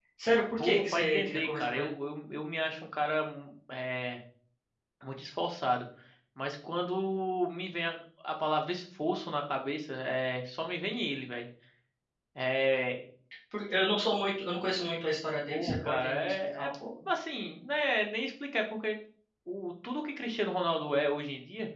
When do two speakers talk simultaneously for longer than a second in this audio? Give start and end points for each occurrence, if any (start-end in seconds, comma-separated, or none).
0.6-1.9, 15.5-16.7